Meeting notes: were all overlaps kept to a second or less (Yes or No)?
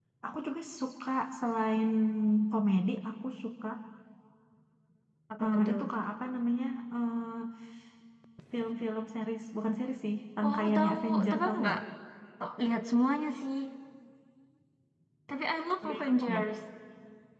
No